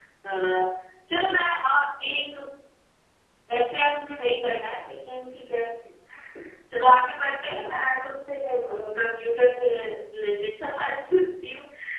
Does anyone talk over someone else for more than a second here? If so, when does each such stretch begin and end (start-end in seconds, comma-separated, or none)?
none